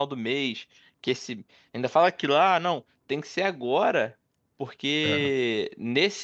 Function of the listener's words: listening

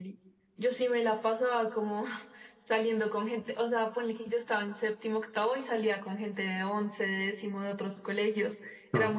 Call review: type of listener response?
listening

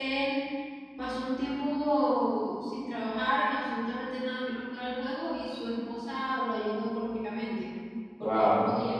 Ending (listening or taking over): listening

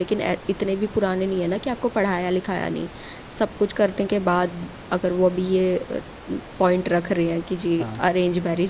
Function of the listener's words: listening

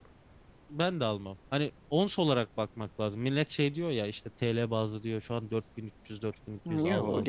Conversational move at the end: taking over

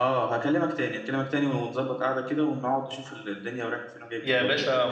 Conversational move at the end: taking over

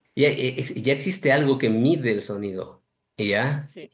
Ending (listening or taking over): listening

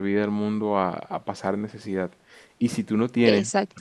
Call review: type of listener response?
listening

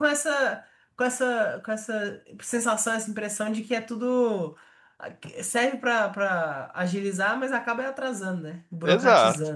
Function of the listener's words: taking over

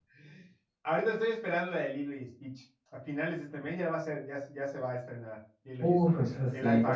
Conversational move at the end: taking over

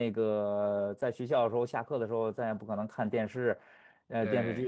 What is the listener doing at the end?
listening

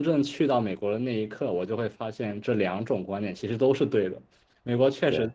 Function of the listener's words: listening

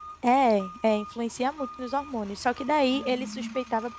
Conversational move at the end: listening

